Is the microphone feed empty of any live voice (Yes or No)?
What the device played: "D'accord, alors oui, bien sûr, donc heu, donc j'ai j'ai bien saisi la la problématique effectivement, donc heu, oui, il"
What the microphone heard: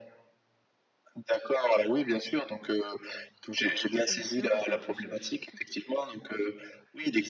No